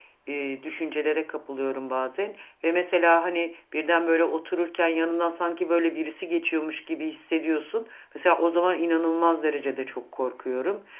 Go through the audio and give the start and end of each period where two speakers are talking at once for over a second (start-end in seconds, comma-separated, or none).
none